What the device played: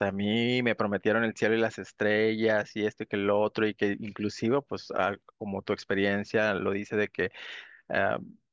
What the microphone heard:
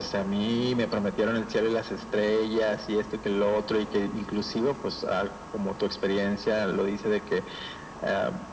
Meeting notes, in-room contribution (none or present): none